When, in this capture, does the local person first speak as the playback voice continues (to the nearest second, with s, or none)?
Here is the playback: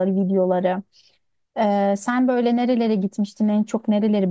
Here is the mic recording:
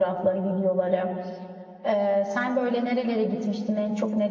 none